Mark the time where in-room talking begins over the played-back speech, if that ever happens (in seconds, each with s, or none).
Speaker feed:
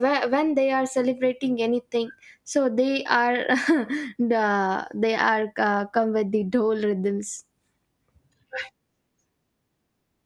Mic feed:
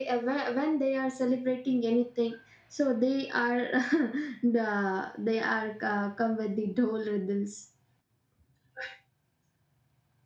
none